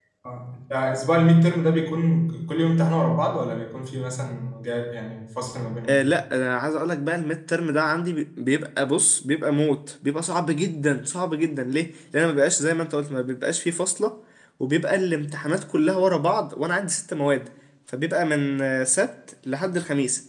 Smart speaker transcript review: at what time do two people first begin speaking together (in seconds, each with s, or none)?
none